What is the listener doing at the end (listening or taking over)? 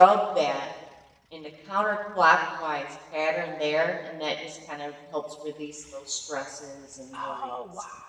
taking over